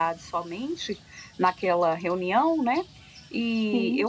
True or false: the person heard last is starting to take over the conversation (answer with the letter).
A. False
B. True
A